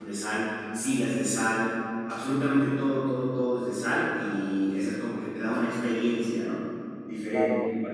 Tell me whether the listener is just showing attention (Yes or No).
No